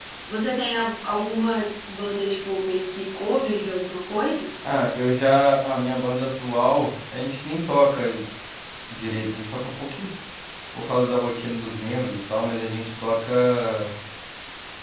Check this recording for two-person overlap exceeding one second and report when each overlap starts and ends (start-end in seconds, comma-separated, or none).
none